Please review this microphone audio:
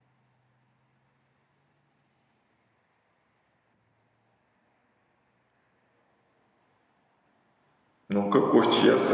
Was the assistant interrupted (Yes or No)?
Yes